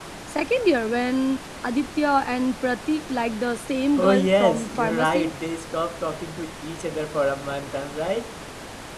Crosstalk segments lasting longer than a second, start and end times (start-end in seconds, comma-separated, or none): 4.0-5.3